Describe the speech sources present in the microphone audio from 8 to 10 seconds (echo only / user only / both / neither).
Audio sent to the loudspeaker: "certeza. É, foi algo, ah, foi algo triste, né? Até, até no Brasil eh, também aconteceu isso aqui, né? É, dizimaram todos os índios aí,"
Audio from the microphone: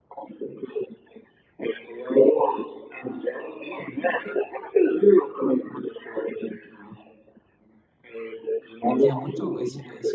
both